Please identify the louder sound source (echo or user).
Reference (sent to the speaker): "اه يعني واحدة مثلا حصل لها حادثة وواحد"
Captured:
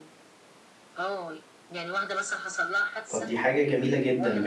user